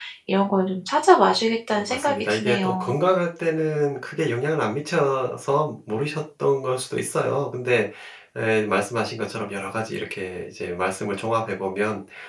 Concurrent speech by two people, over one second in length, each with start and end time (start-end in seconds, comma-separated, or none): 1.7-3.0